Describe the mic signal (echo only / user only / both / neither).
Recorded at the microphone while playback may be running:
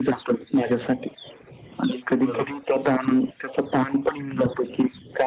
both